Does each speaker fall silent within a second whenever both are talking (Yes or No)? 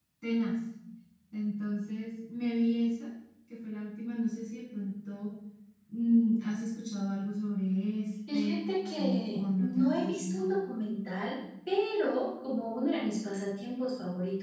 No